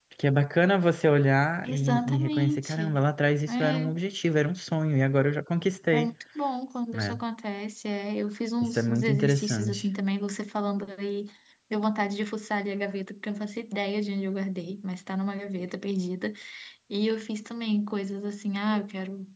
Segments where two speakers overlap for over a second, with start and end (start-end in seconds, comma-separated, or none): 1.6-2.9, 8.6-9.8